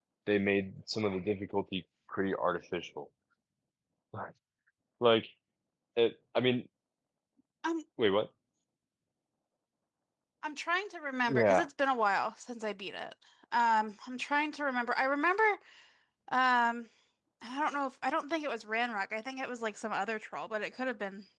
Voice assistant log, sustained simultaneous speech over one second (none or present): none